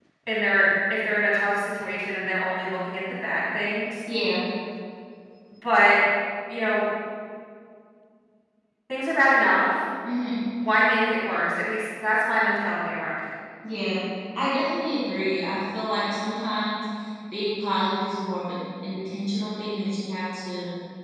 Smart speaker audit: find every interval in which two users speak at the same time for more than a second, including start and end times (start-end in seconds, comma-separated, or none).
none